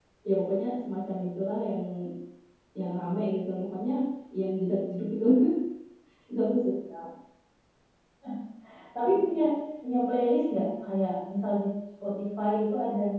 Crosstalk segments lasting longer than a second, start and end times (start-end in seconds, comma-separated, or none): none